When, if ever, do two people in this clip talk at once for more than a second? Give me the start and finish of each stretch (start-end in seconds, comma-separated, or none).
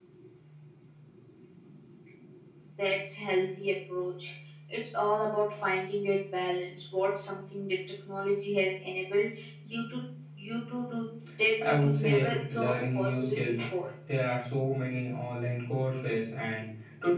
11.6-13.5